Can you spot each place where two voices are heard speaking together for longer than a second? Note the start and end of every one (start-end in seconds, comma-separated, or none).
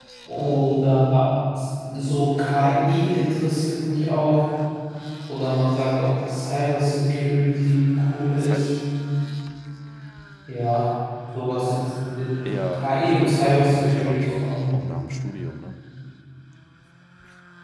12.4-14.4